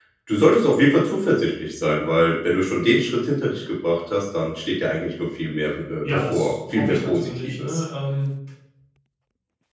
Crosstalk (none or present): present